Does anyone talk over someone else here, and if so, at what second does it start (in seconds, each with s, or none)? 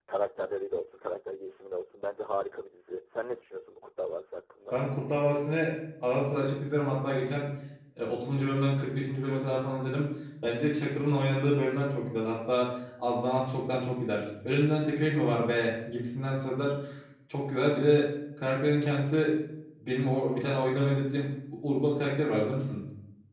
none